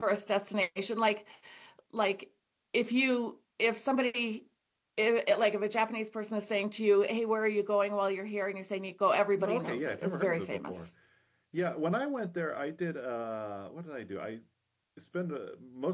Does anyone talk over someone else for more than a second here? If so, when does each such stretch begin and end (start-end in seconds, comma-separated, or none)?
9.4-10.9